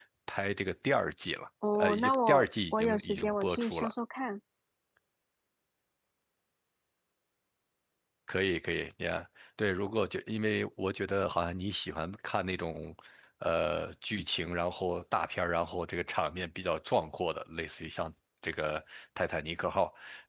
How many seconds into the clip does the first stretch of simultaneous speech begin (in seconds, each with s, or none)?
1.6 s